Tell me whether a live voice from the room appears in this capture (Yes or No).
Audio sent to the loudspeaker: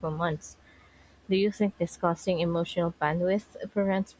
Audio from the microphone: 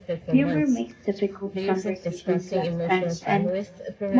Yes